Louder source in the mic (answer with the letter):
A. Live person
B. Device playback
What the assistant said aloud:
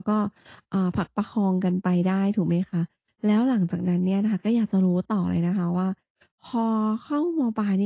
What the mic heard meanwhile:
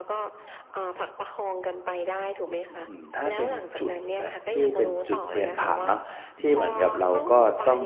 A